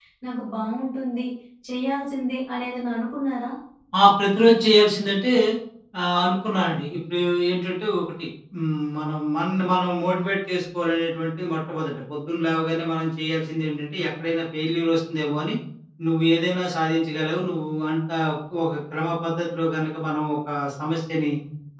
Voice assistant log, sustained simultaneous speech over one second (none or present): none